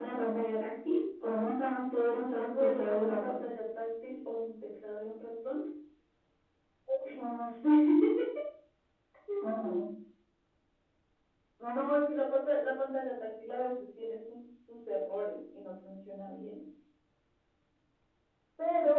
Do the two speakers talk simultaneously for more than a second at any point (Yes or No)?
Yes